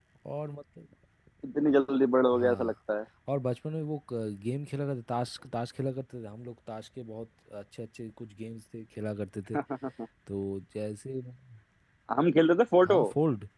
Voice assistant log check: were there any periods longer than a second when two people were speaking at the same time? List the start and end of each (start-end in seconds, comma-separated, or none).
none